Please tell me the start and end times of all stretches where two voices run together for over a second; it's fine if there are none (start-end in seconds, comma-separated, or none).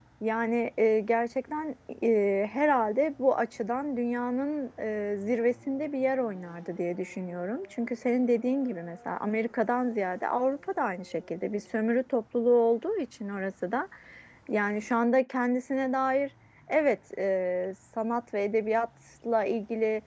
none